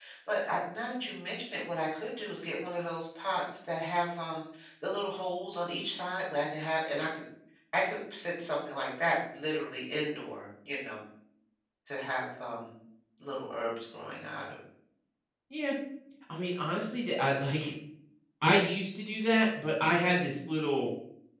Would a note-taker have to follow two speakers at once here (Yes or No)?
No